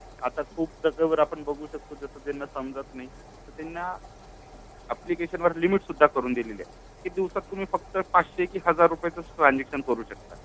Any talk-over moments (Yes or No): No